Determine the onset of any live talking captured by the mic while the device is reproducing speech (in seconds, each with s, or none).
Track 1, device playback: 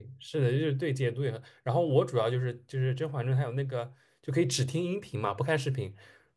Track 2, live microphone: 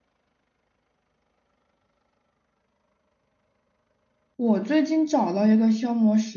4.4 s